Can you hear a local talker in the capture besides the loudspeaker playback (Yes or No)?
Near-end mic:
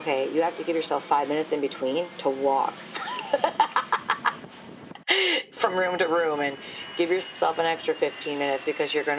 No